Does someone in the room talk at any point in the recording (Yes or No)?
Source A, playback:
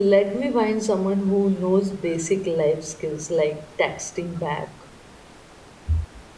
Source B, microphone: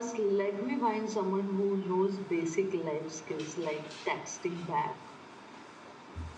No